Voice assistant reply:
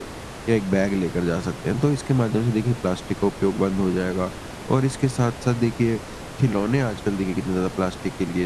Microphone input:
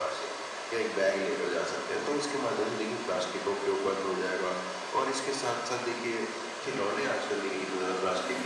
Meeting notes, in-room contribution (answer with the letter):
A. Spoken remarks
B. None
B